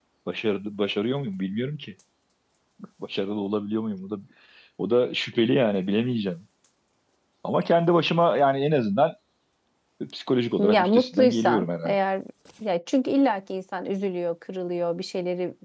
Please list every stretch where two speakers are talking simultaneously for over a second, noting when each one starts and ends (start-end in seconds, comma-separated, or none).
10.6-12.0